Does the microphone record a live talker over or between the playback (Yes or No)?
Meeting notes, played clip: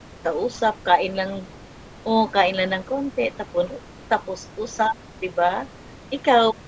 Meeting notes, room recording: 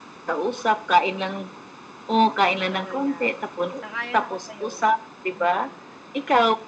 Yes